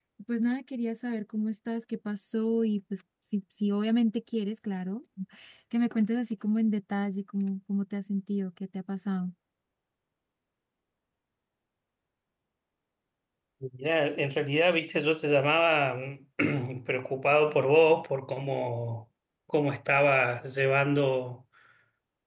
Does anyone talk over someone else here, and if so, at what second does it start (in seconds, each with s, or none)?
none